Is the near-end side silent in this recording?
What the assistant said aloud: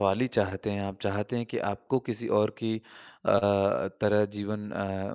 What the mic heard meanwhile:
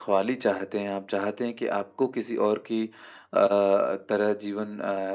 Yes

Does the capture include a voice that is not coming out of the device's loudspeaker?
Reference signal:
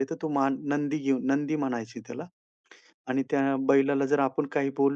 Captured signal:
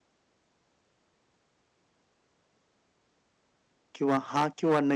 Yes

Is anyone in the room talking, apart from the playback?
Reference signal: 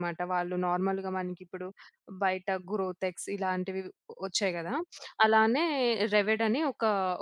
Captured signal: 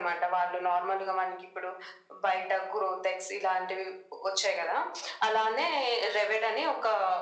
No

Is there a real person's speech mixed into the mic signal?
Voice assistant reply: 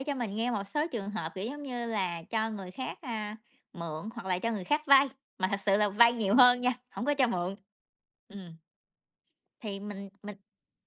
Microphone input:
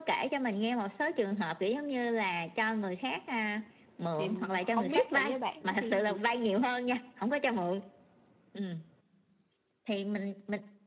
Yes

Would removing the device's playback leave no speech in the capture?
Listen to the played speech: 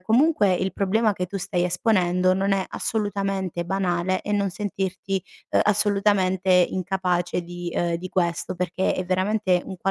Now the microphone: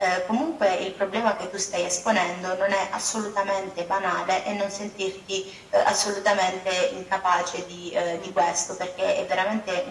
No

